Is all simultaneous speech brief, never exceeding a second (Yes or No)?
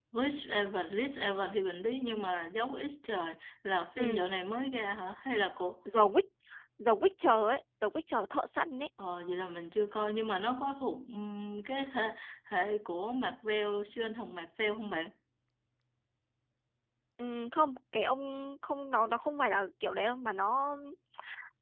Yes